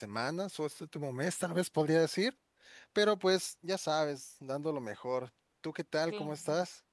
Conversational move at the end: taking over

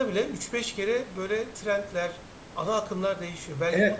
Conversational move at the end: taking over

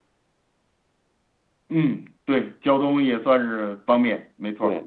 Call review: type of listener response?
taking over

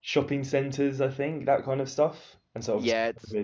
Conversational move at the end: taking over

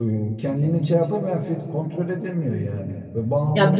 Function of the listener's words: taking over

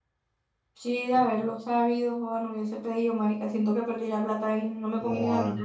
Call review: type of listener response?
taking over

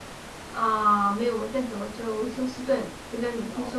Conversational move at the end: taking over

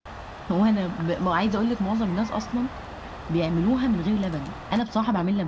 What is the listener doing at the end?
taking over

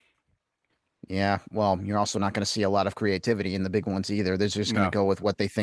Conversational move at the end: listening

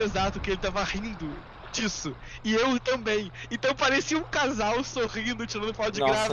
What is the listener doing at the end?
taking over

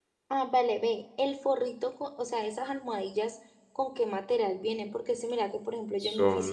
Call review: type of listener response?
listening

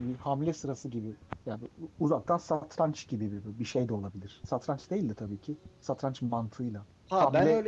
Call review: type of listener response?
taking over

